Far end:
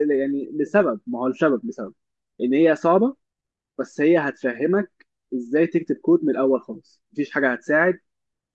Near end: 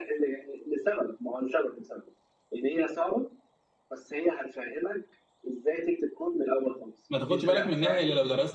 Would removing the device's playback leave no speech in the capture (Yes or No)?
No